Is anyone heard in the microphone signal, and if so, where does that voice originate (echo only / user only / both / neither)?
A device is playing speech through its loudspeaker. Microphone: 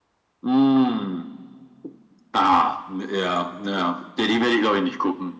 echo only